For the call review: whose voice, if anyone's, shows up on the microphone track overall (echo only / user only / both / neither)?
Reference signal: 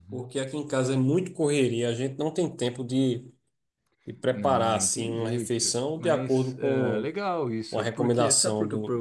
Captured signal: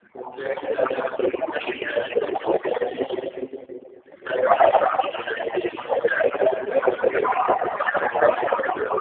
echo only